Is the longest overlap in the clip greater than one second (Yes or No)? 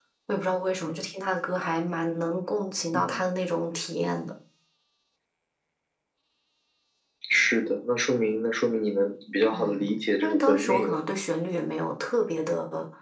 Yes